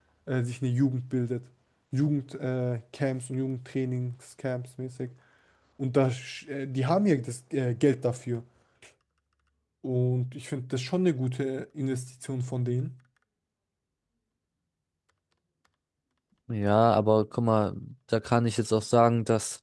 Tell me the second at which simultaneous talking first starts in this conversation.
none

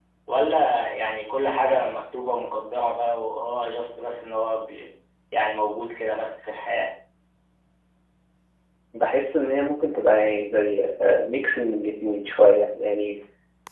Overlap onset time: none

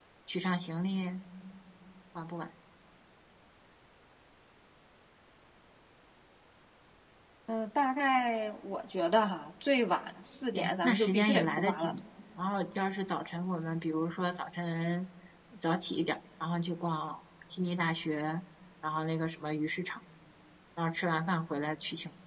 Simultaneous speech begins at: 10.5 s

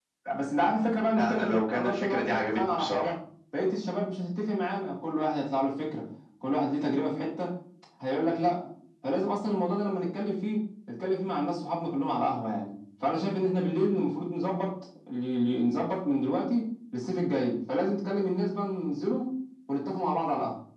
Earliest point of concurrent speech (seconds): 1.1 s

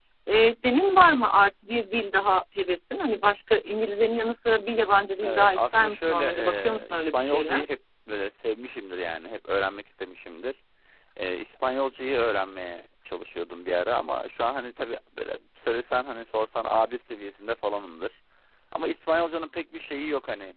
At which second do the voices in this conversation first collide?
5.2 s

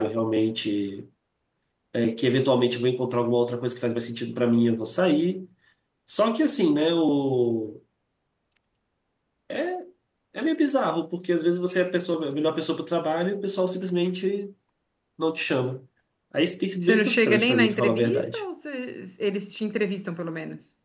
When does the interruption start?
16.8 s

